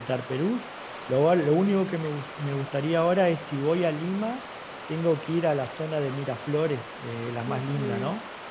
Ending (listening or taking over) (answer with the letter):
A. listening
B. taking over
B